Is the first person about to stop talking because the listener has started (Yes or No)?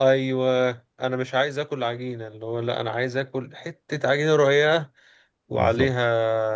No